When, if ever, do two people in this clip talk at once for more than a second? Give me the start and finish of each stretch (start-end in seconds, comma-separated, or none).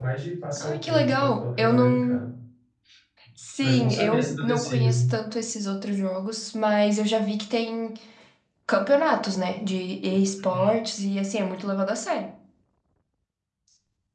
0.6-2.3, 3.6-4.9